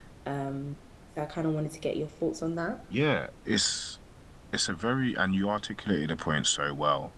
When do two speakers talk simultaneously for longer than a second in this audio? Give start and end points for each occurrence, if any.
none

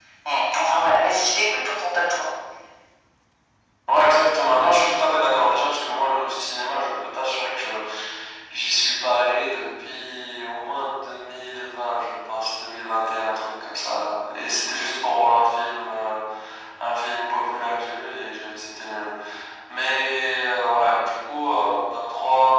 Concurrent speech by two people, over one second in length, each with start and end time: none

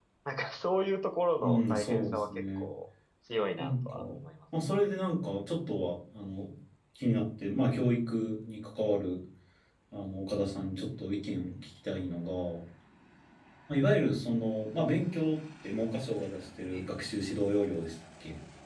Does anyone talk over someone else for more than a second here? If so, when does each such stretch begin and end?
1.4-2.7

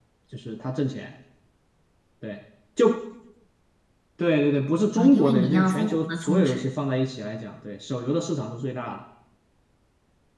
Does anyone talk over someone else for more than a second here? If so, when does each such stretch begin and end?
5.0-6.6

